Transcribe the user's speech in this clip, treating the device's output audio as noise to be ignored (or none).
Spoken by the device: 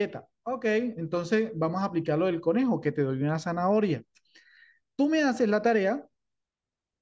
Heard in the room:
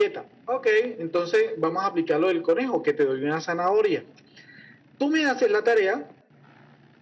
none